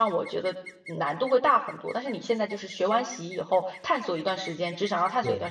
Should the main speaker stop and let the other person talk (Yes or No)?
No